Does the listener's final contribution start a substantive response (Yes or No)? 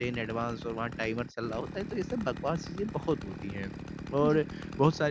No